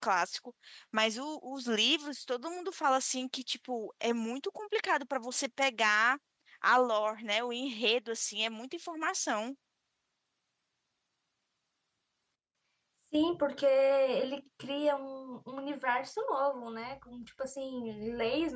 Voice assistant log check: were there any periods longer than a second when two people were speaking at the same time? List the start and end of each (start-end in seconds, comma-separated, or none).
none